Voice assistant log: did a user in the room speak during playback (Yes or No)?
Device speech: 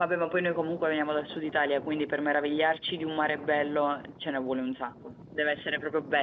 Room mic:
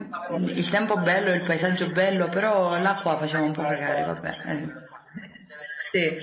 Yes